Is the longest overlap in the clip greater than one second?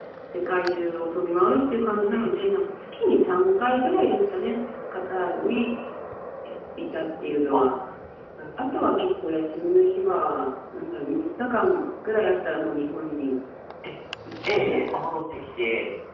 No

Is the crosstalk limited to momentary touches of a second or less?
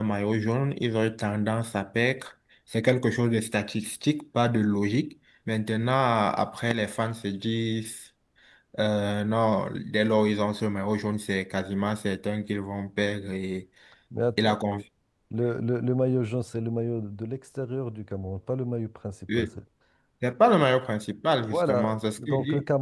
No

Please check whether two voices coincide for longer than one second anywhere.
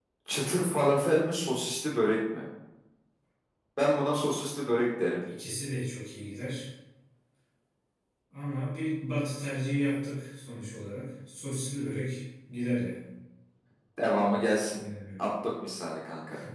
No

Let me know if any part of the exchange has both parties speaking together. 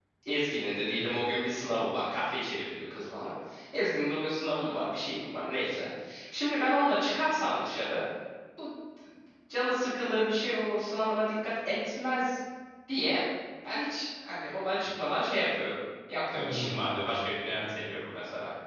Yes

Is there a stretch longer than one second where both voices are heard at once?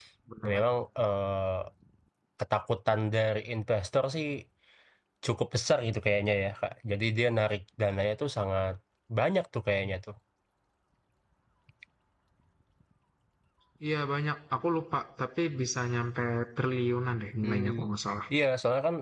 No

